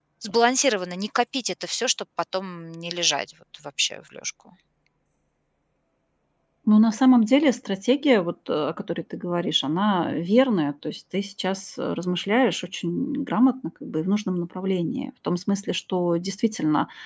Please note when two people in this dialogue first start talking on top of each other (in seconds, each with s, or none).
none